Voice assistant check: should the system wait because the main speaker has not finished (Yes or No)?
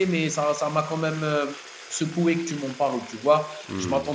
Yes